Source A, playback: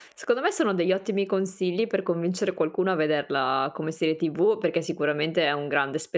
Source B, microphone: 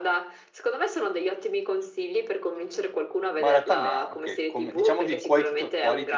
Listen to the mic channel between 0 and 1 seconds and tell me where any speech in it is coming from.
echo only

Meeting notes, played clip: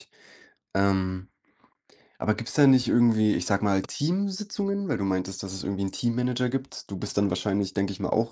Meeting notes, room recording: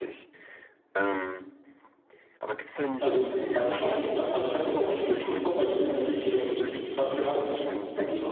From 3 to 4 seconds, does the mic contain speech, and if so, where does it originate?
both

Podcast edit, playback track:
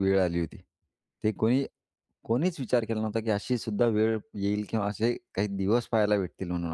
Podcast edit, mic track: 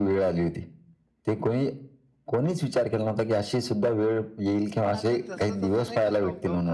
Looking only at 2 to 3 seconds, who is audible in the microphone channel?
echo only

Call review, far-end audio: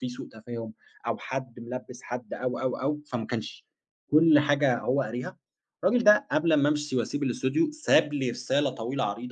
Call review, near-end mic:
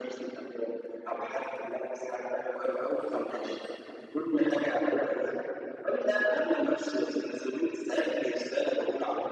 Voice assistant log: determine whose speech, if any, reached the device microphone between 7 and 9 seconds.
echo only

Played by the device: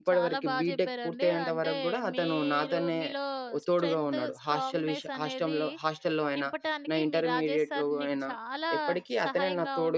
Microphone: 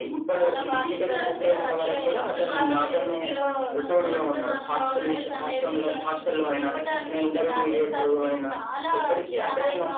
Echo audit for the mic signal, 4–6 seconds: both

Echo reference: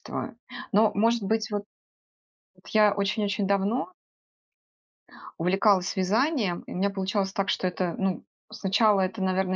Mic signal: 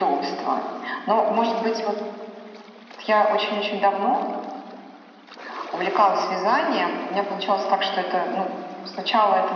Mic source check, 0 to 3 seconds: echo only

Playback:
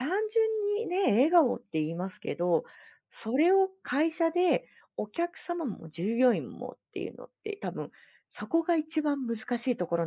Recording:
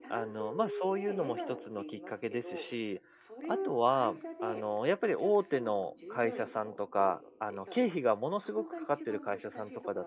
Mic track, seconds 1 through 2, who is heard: both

